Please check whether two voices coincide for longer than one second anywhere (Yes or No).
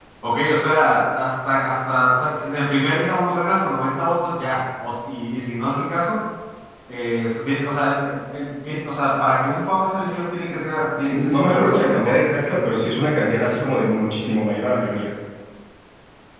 Yes